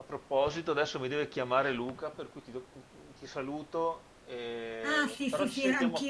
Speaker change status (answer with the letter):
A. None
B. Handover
B